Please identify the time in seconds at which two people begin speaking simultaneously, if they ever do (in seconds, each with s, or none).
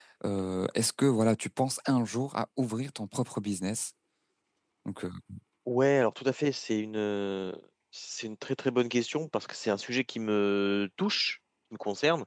none